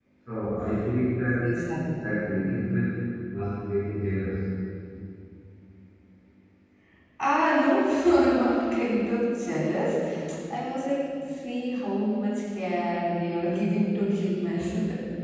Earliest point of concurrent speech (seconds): none

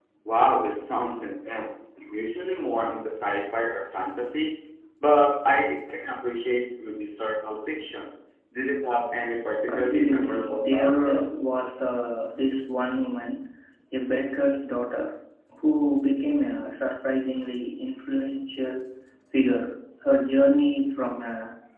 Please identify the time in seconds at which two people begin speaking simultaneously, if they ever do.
9.7 s

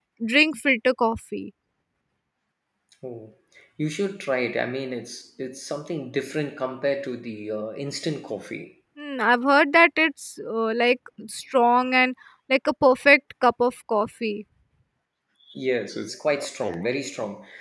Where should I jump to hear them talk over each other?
none

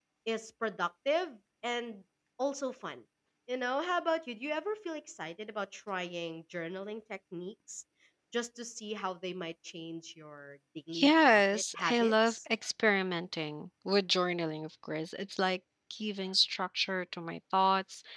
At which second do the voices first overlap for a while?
10.9 s

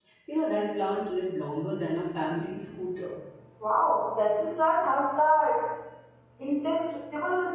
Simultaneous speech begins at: none

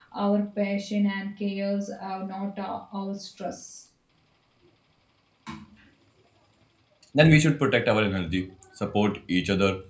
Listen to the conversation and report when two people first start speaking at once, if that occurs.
none

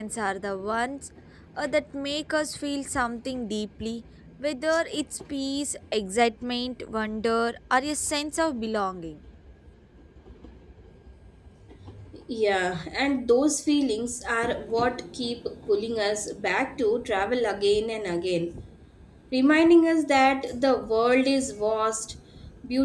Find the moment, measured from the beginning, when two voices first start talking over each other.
none

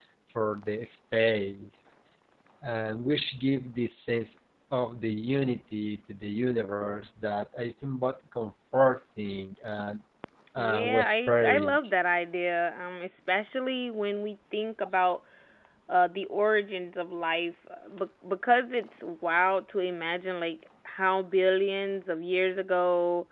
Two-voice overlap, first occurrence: 10.6 s

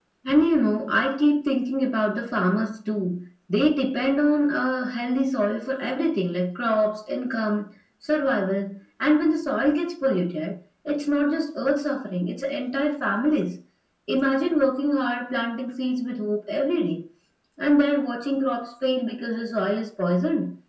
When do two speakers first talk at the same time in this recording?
none

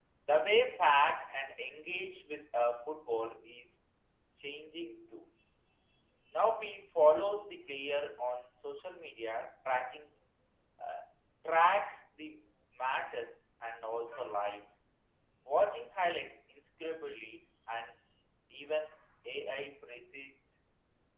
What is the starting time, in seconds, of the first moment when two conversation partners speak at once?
none

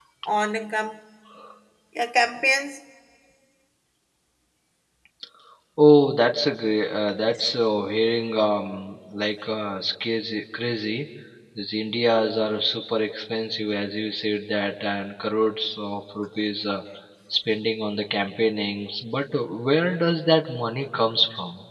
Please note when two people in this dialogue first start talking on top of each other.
none

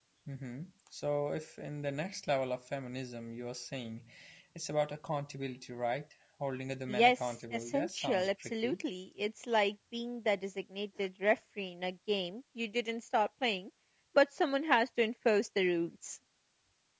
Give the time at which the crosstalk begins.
6.9 s

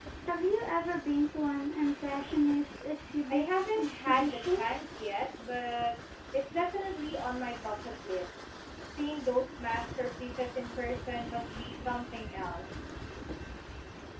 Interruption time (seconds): 3.3 s

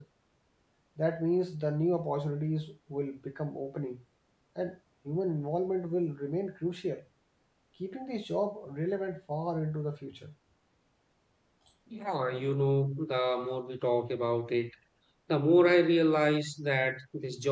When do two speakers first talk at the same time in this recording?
none

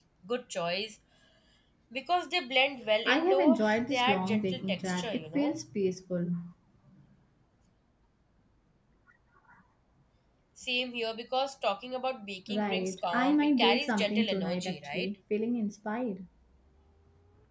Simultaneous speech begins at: 3.1 s

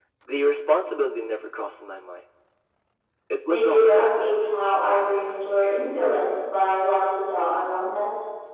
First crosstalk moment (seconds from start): 3.5 s

